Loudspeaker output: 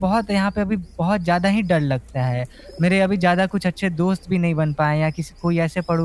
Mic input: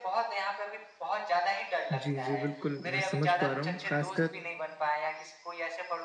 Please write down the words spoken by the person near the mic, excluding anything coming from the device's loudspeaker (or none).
जी, जी, बिल्कुल, मैं समझ पा रहा हूँ, ख़ासकर